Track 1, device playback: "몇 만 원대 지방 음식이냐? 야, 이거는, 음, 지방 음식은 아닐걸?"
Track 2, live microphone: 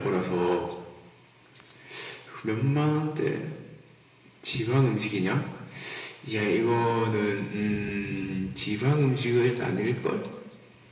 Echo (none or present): present